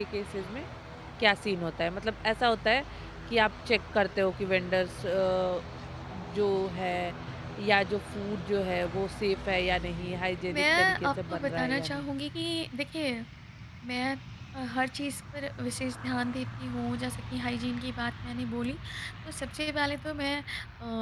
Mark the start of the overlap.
10.5 s

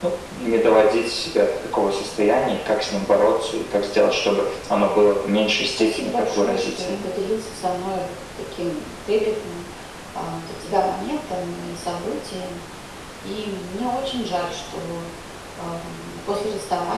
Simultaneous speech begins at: 5.8 s

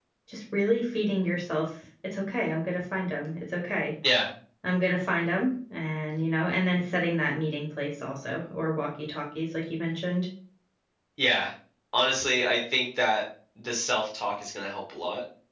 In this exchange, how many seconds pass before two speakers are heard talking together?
none

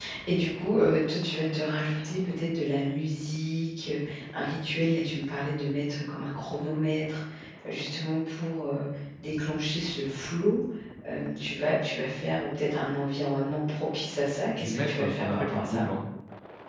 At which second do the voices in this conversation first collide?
14.6 s

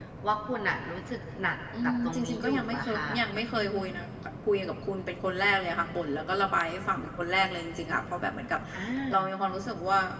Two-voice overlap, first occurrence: 1.7 s

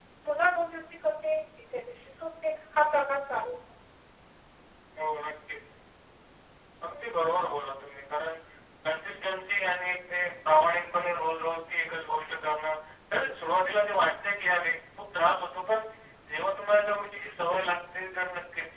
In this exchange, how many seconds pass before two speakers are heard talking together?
none

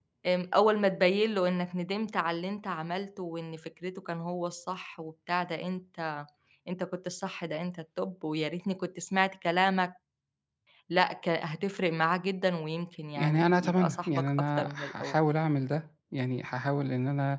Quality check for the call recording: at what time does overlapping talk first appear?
13.2 s

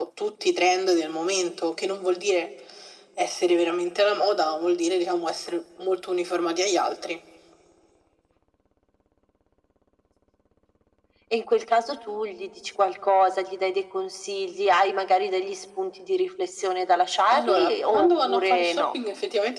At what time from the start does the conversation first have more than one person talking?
17.3 s

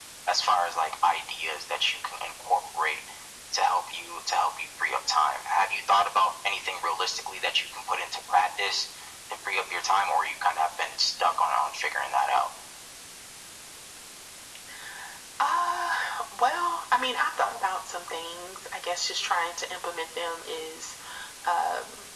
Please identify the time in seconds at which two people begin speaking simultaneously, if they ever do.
none

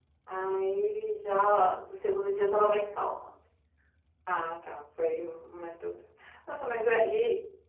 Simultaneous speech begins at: none

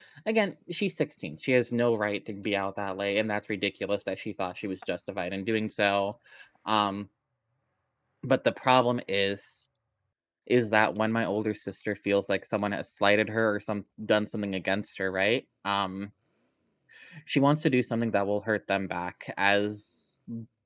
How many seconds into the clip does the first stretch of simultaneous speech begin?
none

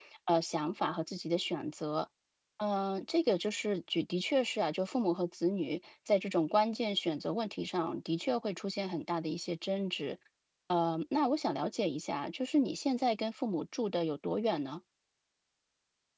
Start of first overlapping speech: none

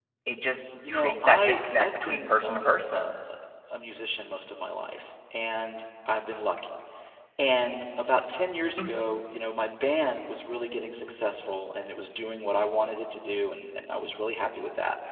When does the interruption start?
0.9 s

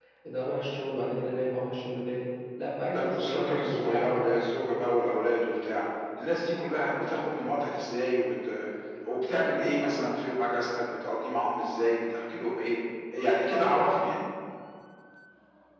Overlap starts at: 2.9 s

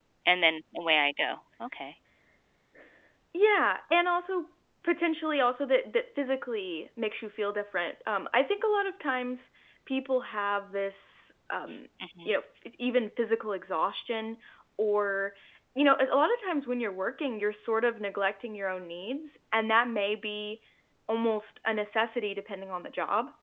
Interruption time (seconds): none

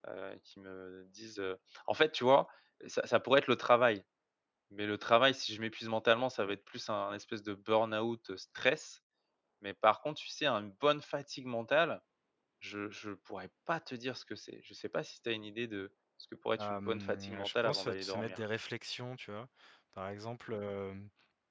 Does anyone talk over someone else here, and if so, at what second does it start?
16.6 s

